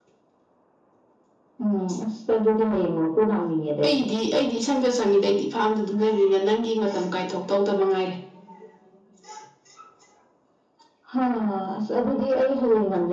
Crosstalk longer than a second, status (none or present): none